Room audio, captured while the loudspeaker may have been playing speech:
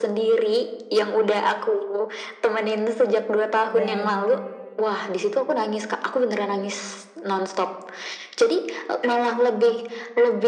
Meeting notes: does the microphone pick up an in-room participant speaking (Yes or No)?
Yes